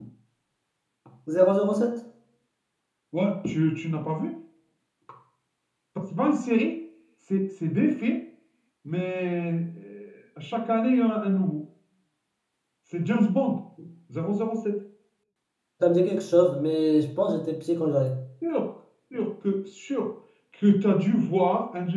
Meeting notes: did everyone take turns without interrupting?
Yes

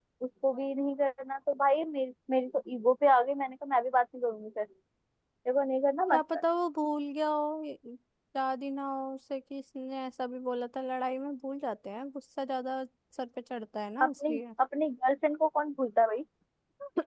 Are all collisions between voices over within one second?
Yes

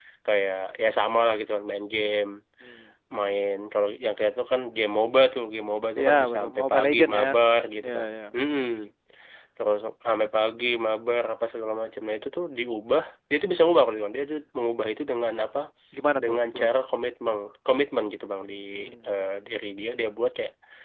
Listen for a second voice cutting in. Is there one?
Yes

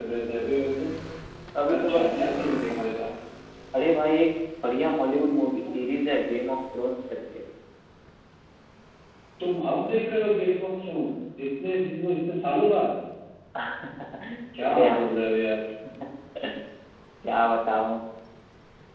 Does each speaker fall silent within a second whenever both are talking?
No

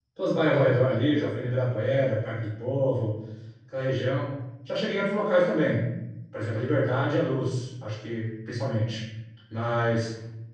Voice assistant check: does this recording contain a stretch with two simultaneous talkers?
No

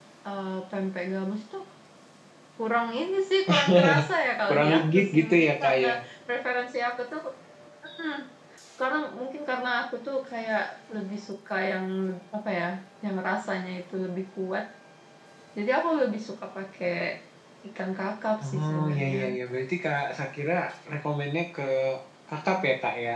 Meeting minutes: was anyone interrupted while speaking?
Yes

